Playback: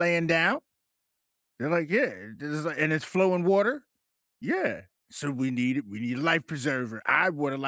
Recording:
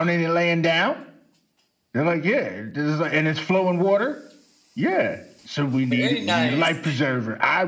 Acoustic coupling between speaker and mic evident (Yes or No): Yes